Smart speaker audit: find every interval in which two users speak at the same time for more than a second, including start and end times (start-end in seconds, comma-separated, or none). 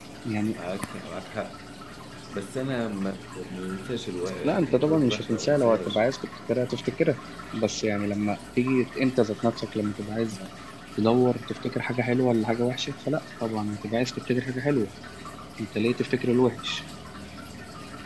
4.4-6.0